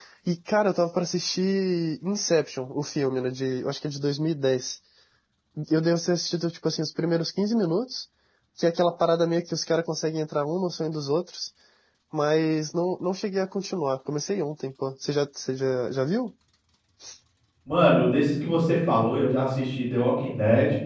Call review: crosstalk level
none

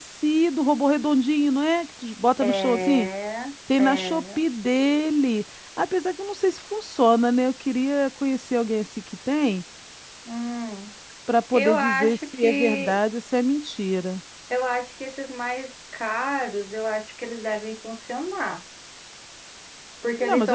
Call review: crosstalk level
present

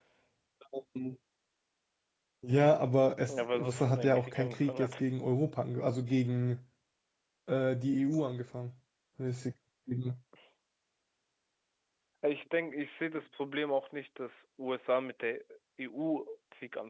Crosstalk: present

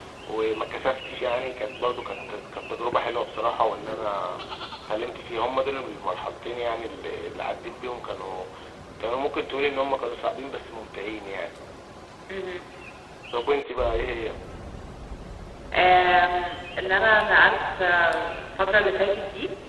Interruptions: none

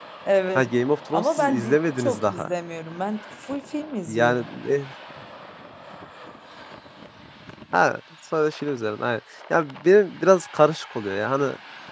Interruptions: present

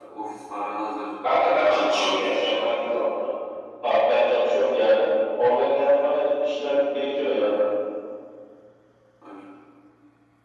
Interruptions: present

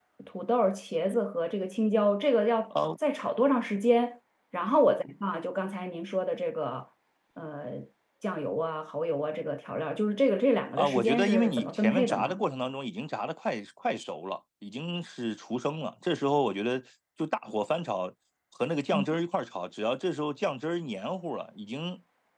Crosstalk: present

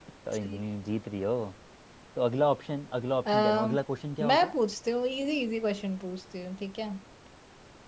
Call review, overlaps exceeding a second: none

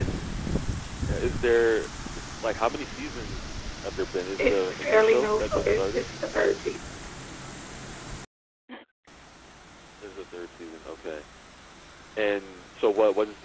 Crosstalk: present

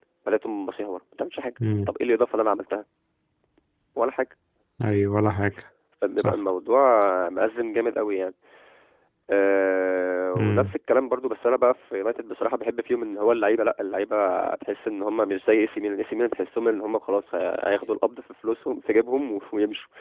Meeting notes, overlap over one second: none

